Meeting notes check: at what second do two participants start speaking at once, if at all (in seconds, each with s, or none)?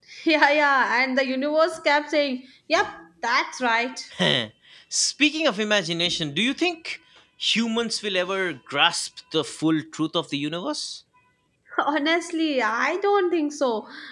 none